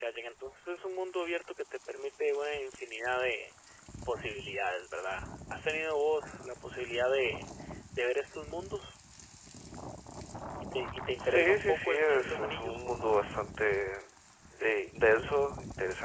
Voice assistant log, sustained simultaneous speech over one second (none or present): present